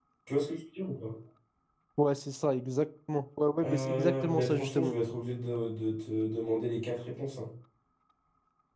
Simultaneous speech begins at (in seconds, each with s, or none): 3.6 s